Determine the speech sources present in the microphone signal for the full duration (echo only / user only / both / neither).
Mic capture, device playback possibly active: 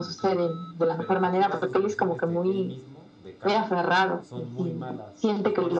both